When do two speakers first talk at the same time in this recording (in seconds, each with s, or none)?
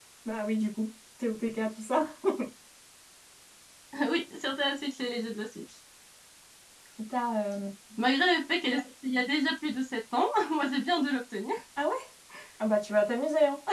none